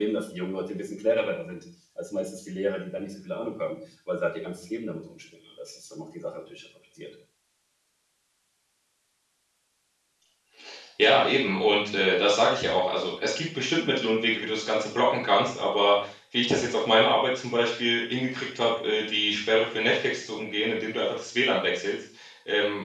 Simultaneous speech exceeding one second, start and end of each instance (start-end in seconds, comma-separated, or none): none